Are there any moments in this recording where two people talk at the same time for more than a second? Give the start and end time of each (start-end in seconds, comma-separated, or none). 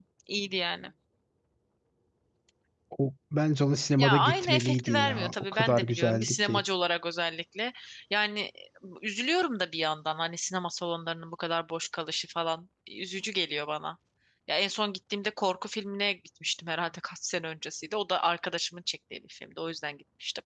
4.0-6.6